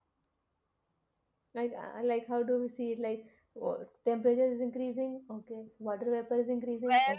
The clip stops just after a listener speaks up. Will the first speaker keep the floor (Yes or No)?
No